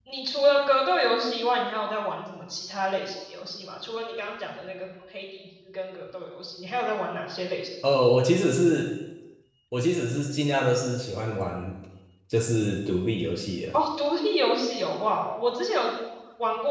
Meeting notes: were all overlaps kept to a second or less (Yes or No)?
Yes